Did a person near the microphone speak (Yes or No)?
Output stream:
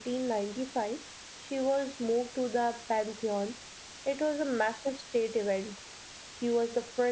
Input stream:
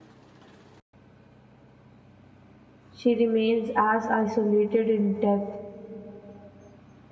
Yes